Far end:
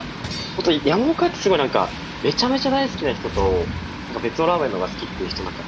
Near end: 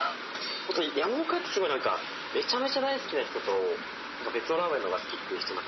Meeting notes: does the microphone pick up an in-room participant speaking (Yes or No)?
No